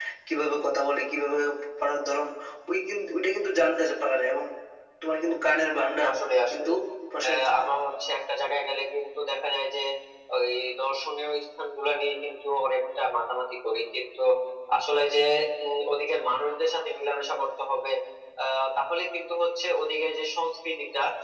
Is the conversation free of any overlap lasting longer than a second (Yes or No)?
Yes